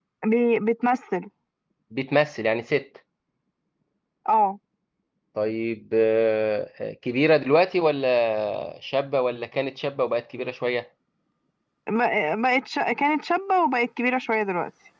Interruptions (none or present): none